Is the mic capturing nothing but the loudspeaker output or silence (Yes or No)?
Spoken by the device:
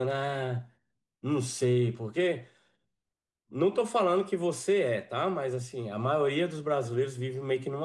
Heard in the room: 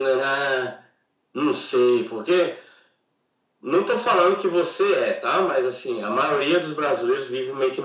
Yes